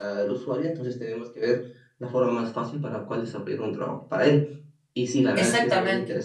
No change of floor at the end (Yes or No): Yes